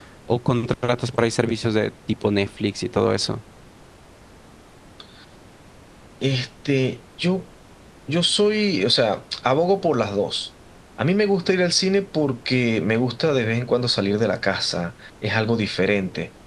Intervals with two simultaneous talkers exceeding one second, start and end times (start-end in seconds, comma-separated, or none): none